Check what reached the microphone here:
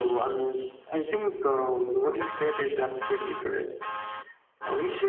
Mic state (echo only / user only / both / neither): echo only